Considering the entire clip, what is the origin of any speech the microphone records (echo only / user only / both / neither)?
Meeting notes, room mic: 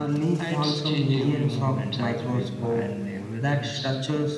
echo only